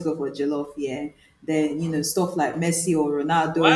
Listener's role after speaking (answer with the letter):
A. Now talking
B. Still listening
A